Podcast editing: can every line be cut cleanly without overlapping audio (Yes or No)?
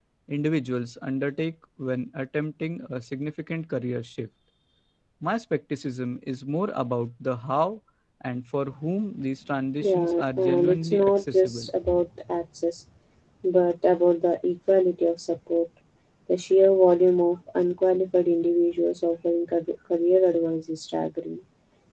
No